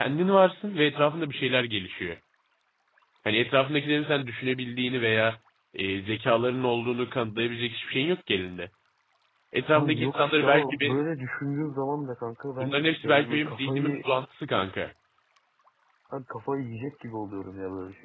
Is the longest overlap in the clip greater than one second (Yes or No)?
Yes